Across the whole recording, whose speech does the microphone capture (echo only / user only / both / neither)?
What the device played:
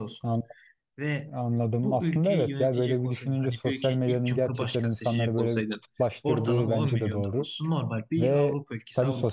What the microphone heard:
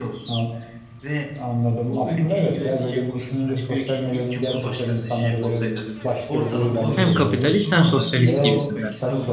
both